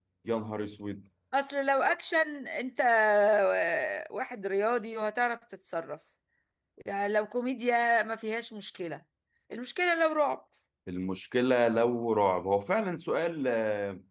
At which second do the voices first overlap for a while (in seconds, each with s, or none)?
none